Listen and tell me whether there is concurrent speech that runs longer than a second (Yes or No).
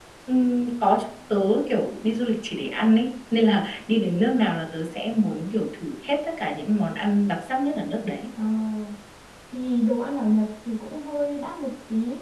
No